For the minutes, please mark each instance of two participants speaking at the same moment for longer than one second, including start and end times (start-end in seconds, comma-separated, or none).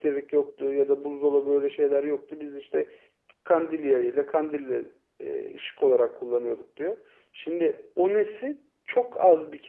none